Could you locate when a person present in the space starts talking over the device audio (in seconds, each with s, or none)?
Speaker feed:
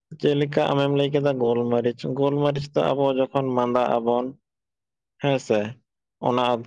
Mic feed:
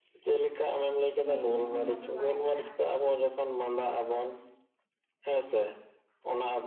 1.2 s